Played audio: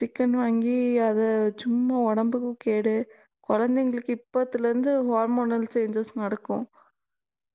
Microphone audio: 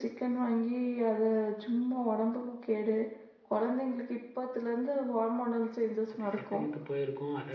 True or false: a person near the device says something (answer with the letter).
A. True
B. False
A